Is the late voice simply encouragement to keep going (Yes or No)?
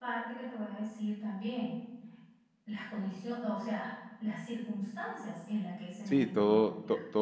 No